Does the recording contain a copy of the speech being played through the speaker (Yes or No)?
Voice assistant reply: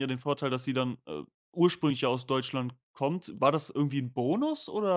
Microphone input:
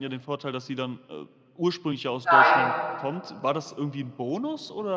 Yes